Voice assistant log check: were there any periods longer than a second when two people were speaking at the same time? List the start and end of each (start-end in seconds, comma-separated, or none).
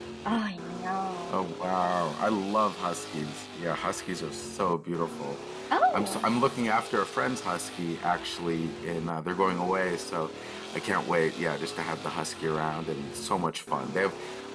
none